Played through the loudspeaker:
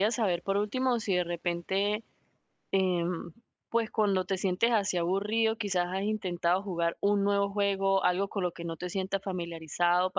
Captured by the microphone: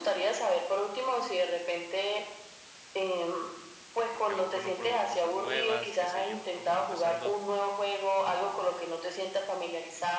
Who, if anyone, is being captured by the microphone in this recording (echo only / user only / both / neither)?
both